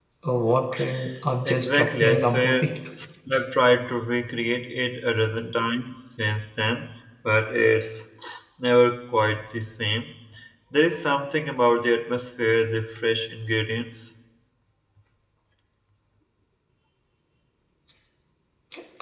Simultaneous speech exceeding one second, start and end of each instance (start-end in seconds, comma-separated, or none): 1.5-2.7